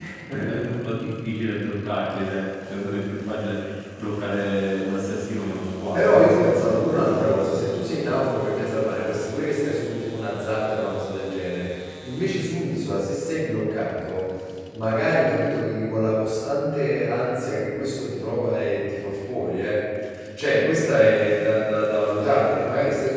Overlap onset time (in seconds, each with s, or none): 5.9 s